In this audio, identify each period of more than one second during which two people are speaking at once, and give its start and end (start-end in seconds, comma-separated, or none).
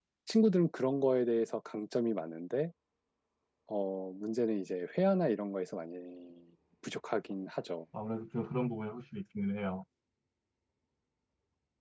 none